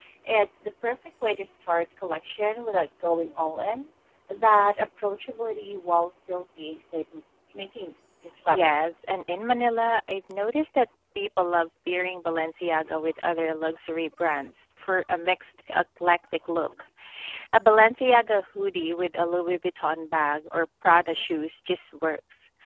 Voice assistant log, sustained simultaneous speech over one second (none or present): none